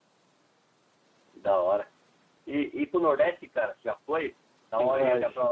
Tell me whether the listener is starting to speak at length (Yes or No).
Yes